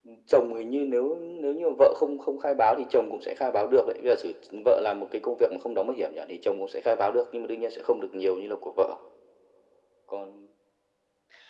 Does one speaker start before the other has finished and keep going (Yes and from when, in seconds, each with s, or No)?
No